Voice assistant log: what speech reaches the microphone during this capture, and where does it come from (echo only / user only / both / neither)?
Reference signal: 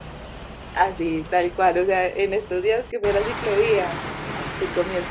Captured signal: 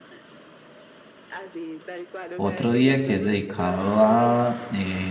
both